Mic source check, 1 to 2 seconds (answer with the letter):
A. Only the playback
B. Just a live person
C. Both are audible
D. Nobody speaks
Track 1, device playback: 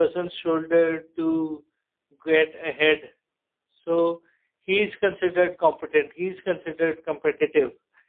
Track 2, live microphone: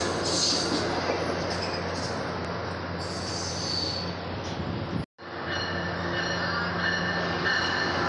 D